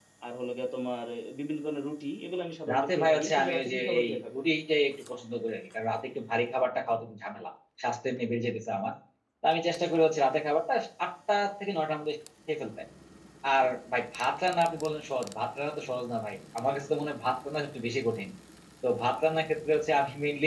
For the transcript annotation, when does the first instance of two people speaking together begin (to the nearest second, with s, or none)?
3 s